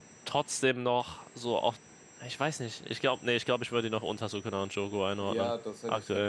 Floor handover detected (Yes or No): Yes